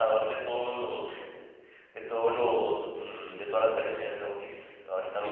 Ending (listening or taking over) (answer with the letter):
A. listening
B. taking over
B